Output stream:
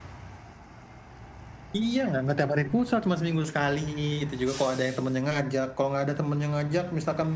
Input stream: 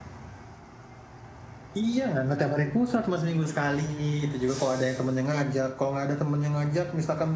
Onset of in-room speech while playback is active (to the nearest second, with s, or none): none